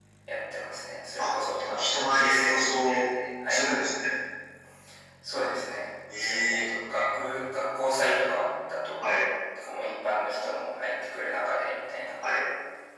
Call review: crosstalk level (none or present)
present